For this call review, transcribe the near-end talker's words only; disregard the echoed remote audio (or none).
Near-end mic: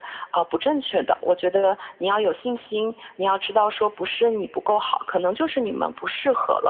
none